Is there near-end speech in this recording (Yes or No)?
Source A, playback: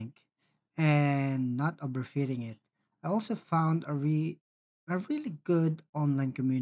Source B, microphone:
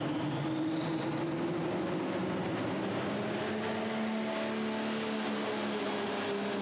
No